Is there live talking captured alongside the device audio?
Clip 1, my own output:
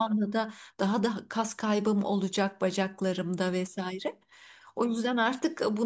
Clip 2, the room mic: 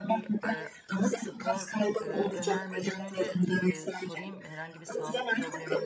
Yes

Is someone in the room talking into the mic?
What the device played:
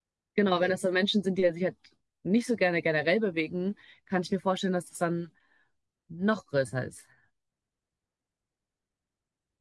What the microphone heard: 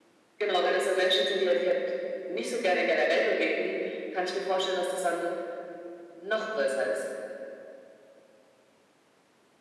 No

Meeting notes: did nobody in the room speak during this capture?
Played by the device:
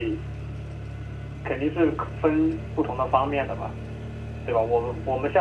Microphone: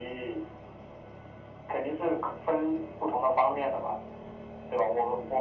Yes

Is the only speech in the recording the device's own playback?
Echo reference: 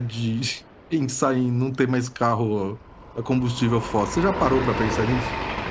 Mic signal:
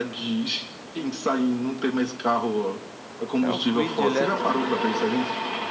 No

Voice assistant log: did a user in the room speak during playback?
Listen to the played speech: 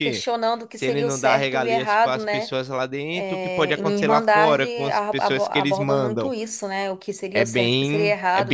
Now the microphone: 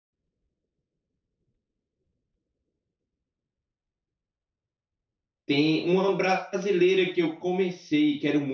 Yes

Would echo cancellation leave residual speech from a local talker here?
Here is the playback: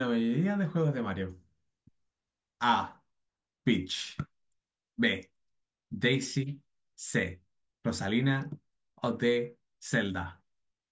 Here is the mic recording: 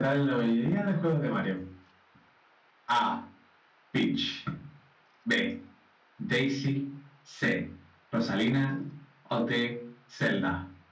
No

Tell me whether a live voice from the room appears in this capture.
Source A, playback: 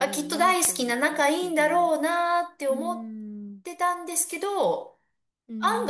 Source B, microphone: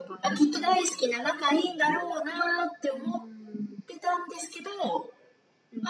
No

